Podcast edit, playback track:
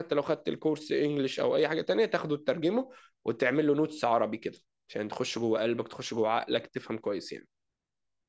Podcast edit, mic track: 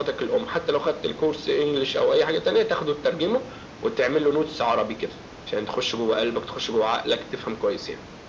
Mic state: echo only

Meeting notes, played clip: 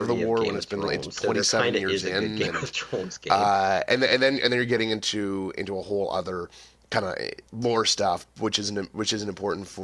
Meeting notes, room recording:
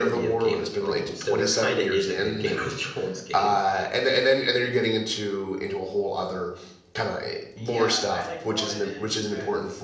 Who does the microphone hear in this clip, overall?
both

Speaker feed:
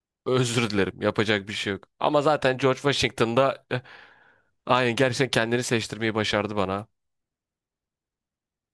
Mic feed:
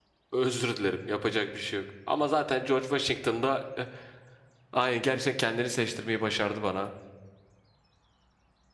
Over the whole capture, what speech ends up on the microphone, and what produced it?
echo only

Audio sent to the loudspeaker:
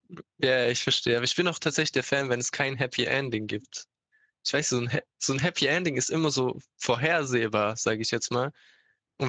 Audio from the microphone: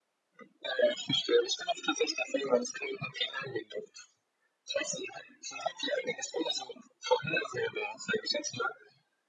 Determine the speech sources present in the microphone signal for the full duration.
echo only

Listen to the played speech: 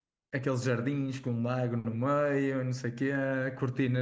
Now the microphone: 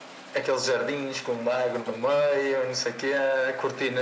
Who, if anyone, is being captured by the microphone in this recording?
echo only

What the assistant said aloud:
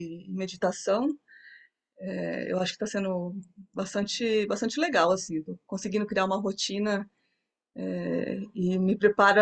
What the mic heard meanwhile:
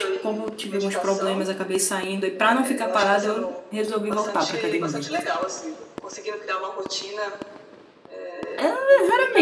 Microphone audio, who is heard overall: both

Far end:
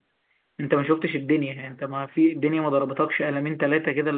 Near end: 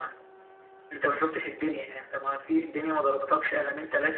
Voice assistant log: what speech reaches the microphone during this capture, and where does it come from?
echo only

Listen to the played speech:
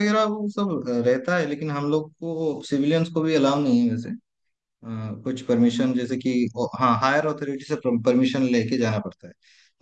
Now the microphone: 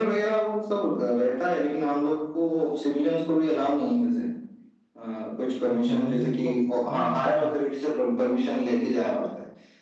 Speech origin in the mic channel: both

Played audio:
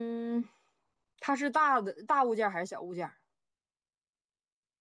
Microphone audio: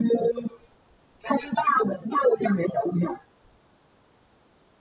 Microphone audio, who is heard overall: echo only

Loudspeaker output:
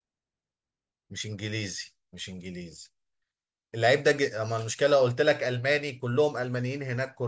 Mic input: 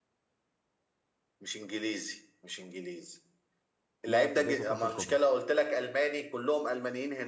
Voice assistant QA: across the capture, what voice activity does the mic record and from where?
both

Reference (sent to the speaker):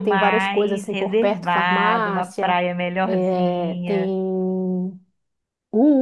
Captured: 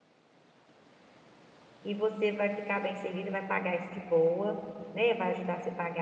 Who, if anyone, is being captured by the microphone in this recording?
user only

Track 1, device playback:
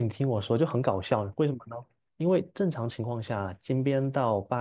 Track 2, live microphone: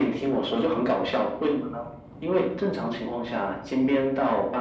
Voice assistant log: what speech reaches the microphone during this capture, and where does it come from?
echo only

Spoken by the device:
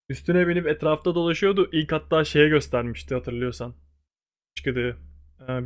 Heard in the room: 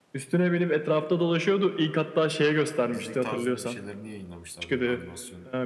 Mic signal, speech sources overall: both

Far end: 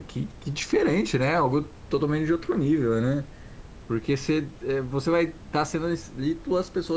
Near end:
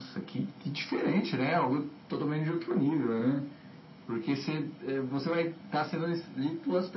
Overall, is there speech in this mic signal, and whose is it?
echo only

